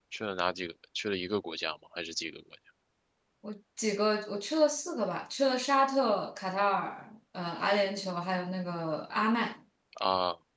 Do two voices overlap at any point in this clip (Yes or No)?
No